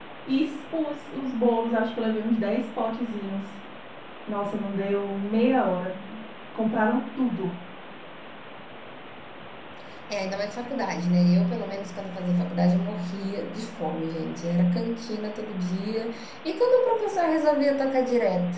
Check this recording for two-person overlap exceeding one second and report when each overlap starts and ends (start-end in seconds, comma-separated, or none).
none